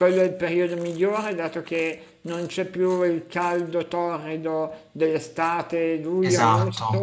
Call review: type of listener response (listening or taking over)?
taking over